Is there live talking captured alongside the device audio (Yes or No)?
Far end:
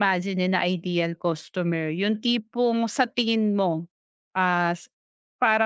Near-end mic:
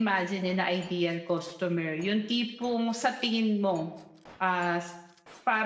No